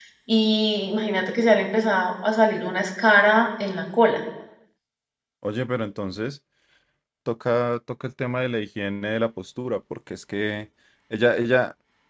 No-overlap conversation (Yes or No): Yes